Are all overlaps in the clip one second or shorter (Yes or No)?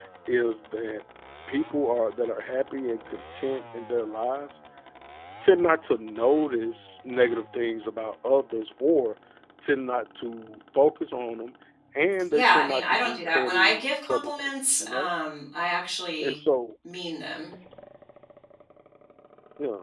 No